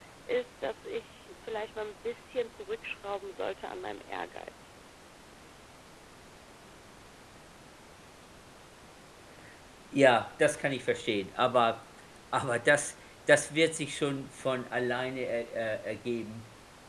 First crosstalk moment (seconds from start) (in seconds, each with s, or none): none